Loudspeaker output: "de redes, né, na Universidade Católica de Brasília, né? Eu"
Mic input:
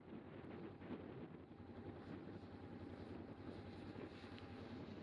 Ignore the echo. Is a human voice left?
No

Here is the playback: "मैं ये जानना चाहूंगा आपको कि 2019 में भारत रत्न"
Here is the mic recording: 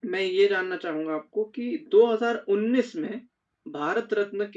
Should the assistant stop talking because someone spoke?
No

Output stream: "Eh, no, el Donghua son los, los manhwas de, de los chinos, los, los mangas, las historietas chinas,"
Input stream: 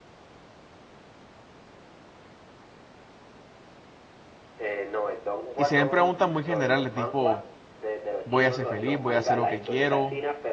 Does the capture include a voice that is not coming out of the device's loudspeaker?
Yes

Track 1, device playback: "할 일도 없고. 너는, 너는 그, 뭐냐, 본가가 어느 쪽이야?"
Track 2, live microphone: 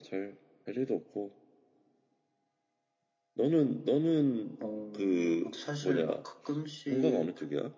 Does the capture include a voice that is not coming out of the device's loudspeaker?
Yes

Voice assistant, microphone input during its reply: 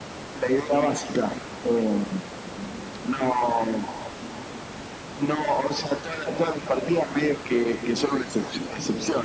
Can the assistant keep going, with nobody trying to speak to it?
Yes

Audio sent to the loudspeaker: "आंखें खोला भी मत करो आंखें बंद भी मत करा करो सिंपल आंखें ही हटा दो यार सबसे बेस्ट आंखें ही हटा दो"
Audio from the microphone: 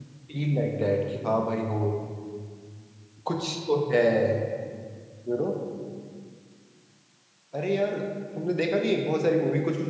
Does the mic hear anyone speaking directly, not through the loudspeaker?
Yes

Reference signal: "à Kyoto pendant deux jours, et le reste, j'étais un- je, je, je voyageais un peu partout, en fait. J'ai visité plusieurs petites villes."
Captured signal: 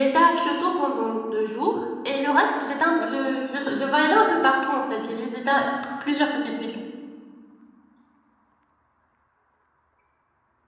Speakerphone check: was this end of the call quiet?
Yes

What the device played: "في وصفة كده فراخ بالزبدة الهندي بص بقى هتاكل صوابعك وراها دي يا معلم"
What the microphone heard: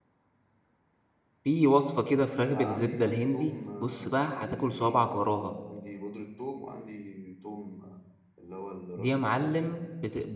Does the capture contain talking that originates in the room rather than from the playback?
Yes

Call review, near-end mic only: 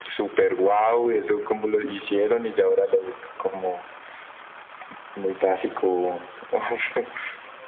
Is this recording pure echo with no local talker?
Yes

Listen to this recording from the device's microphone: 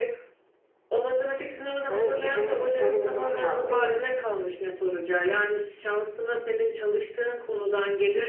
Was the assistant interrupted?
Yes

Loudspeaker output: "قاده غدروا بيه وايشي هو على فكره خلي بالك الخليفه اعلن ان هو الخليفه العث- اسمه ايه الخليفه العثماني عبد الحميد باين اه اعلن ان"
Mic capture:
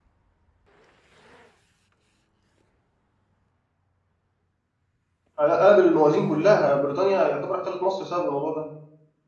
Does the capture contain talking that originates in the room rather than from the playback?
Yes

